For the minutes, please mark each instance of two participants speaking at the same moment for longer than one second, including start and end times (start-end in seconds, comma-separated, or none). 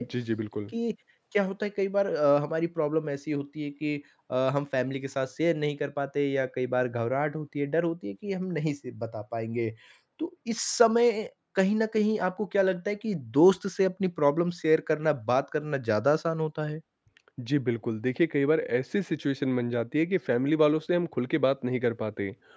none